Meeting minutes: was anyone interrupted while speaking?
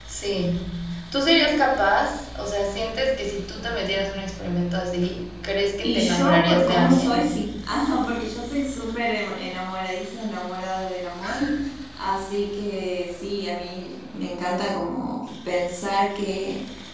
Yes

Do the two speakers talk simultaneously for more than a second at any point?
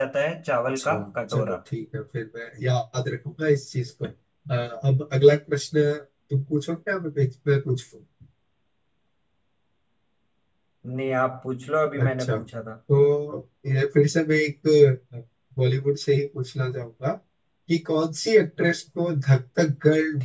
No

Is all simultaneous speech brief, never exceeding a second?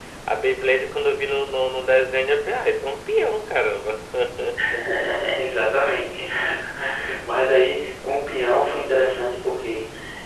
Yes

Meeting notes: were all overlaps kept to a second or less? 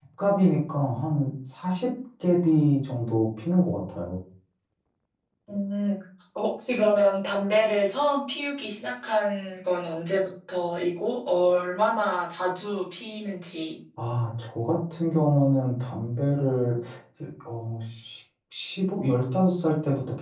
Yes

